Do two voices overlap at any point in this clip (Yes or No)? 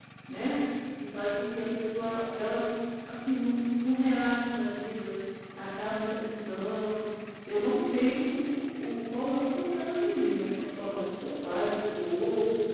No